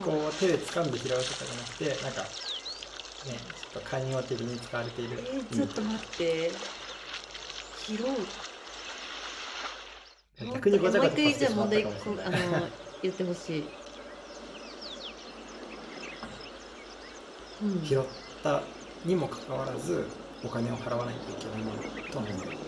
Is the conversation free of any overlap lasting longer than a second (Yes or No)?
No